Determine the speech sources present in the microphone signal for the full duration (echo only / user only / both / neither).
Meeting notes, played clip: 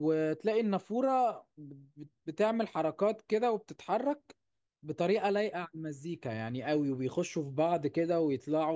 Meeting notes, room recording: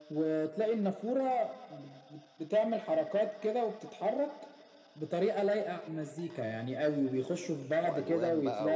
both